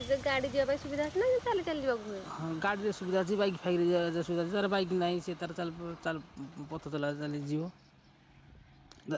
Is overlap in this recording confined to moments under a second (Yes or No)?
Yes